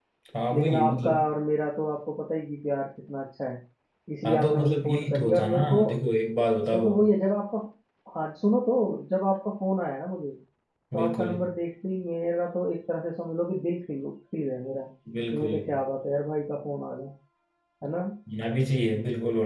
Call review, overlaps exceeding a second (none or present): present